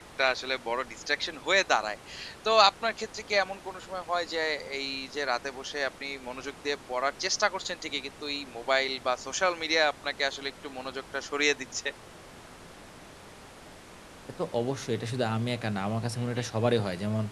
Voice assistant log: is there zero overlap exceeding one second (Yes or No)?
Yes